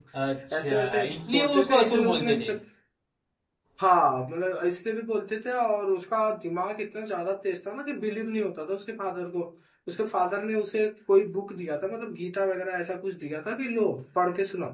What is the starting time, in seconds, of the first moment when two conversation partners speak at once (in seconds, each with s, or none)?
0.6 s